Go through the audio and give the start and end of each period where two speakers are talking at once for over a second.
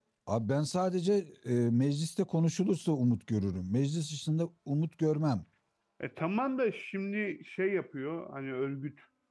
none

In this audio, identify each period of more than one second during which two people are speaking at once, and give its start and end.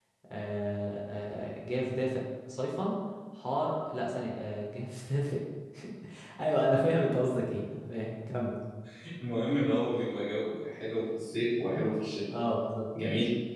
none

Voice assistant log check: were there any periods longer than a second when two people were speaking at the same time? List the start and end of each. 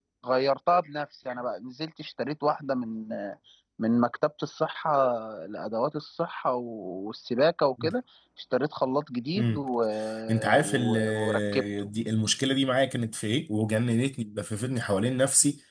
10.6-11.9

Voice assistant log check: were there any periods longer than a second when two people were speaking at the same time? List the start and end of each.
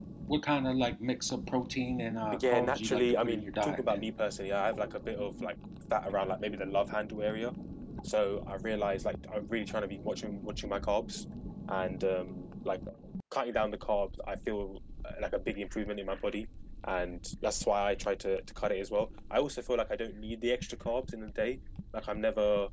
2.4-4.1

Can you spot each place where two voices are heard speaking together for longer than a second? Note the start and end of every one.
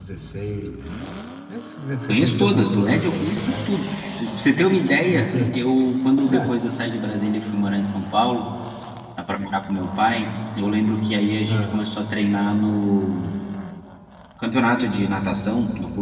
2.0-3.8

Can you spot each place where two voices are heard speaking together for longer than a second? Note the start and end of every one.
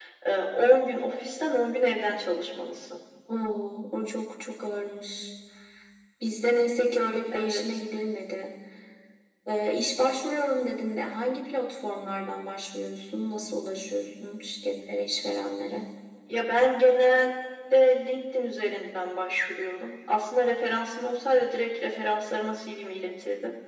none

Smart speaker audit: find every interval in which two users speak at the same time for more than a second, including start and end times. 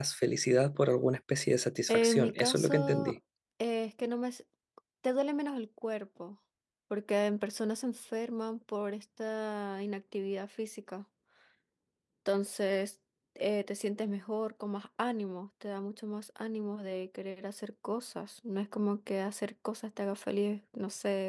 1.9-3.2

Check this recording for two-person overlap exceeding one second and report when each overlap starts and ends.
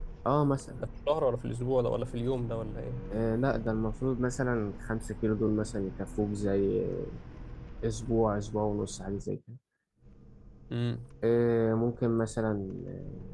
none

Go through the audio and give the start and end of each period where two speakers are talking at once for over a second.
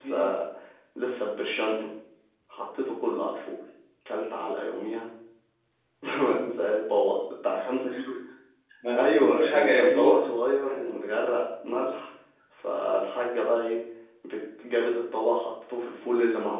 9.0-10.2

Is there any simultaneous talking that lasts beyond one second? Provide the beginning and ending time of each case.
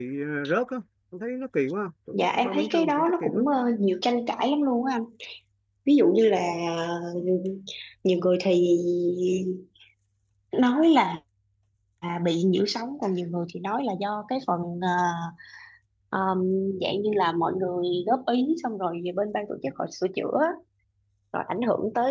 2.1-3.4

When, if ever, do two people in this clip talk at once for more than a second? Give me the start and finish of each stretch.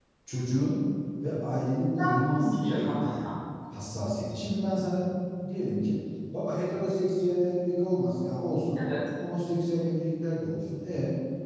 1.8-3.2

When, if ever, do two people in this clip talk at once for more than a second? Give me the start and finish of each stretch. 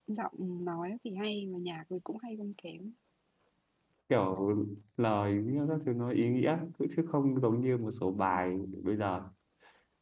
none

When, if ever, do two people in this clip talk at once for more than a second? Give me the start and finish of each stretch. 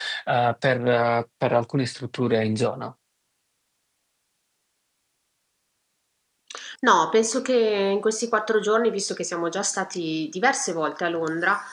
none

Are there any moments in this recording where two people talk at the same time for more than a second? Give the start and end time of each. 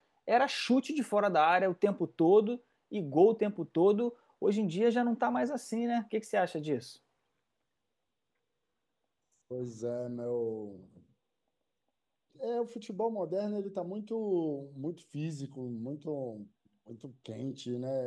none

